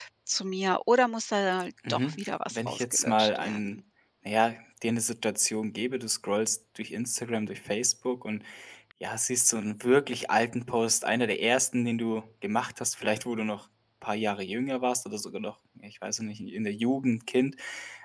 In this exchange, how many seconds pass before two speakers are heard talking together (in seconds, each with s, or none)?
1.9 s